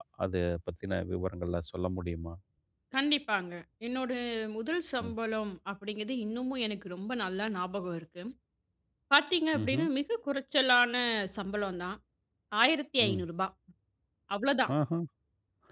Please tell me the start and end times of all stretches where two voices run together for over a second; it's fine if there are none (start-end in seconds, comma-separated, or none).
none